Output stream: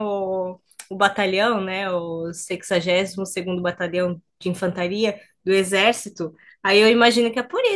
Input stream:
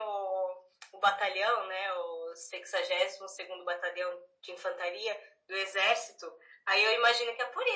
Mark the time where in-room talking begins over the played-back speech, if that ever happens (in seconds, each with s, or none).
none